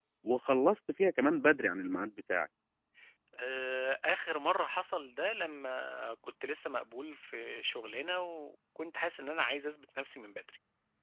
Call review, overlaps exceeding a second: none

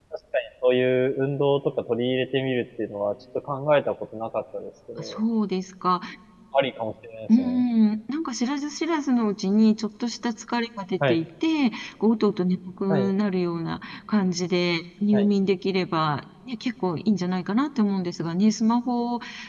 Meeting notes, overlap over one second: none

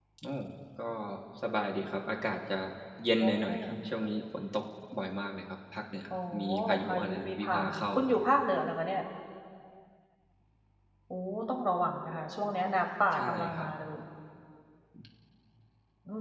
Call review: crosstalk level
present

